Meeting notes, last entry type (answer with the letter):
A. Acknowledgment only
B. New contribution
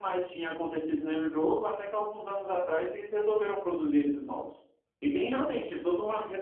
A